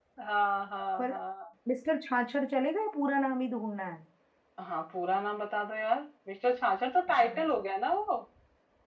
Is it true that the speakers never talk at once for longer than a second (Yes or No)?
Yes